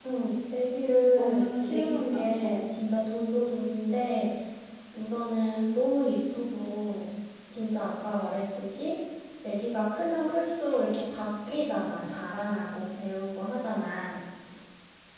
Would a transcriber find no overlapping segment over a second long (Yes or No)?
No